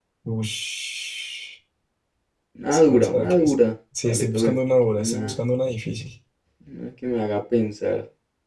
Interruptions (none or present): present